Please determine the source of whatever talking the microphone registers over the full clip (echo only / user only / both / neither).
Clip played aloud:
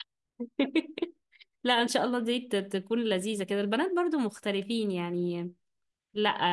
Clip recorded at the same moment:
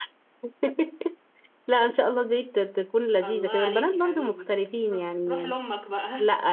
both